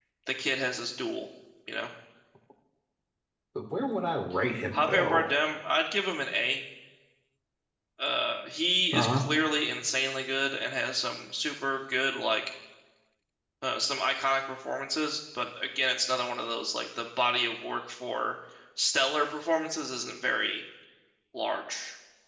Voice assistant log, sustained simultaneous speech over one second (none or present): none